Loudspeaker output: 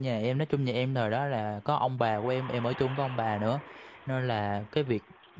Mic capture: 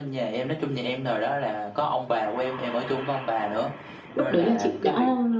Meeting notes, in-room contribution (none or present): present